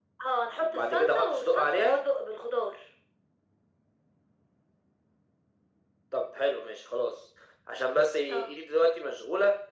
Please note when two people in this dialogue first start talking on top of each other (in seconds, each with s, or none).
0.6 s